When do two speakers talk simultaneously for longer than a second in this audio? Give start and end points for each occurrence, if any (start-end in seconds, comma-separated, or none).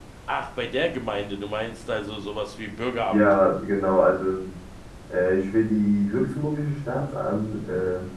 none